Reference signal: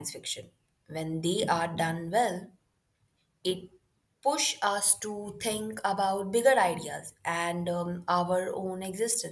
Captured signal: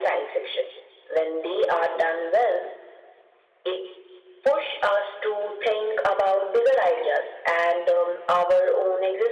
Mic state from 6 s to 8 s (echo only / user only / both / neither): echo only